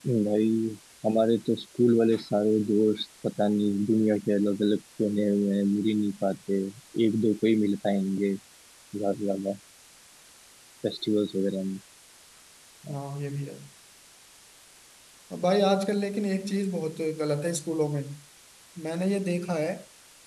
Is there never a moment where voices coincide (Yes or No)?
Yes